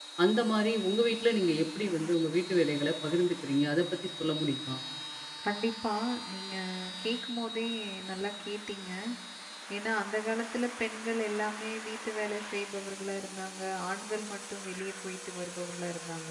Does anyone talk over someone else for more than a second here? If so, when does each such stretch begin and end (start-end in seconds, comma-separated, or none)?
none